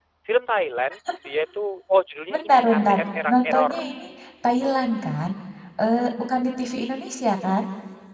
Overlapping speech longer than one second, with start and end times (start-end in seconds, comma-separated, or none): 2.3-3.9